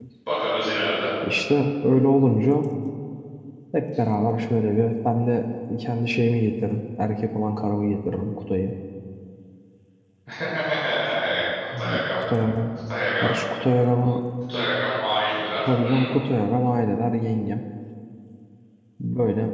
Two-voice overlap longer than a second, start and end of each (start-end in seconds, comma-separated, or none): none